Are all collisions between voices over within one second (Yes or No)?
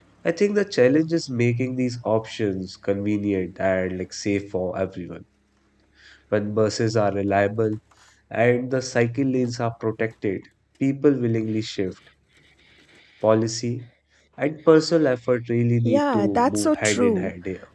No